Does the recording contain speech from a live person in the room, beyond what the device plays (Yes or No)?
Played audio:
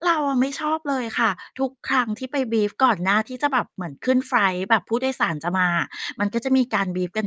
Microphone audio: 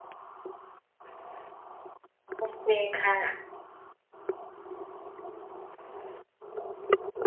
Yes